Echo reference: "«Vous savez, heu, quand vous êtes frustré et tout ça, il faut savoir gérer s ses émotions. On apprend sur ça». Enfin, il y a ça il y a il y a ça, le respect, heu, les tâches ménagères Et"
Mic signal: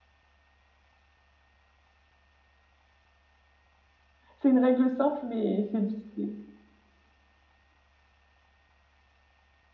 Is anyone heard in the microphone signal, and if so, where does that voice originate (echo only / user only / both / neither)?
user only